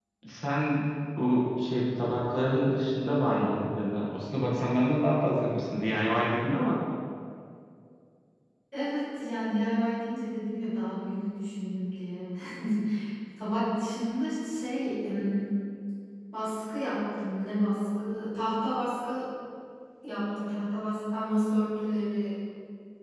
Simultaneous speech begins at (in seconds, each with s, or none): none